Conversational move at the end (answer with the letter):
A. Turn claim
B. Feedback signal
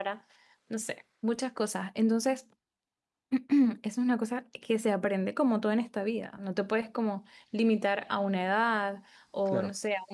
B